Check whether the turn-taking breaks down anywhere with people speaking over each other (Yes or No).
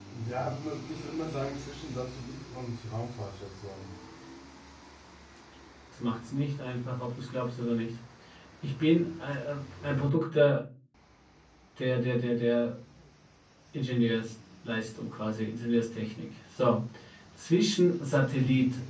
No